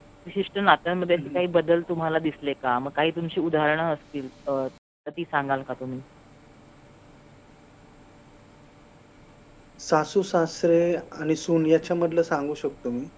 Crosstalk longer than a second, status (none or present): none